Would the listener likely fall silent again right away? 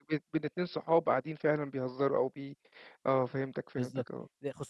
No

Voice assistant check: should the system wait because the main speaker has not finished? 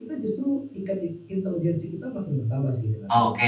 No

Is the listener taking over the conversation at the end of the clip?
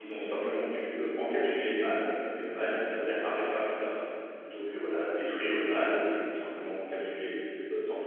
Yes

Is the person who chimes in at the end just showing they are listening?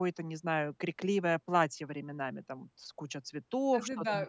No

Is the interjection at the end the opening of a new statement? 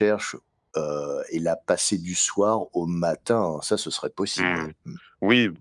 Yes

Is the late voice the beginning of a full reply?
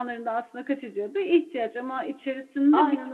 No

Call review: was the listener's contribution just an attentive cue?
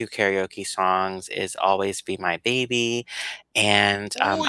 No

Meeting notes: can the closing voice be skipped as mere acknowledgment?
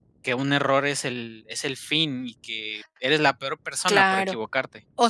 No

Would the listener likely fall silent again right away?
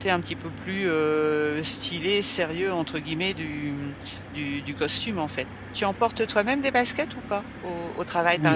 No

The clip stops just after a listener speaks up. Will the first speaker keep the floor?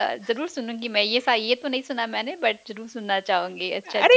No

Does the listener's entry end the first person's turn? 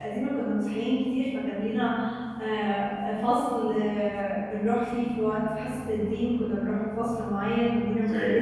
No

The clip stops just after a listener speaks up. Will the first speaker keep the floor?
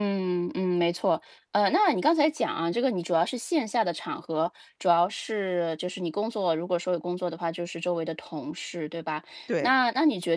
Yes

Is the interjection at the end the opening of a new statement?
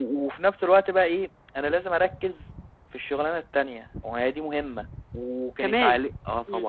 No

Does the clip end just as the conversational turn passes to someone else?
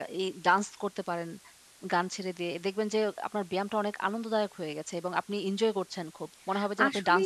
Yes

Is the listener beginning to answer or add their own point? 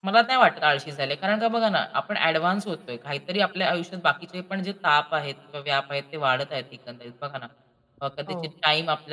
No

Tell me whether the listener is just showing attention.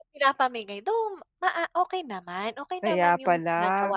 No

